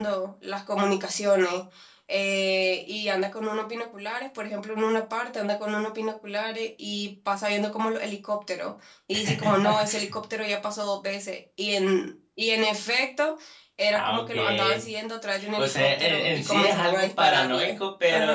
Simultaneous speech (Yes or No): Yes